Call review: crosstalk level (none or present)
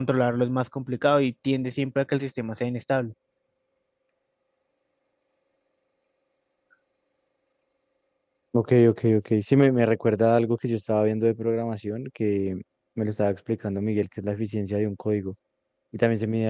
none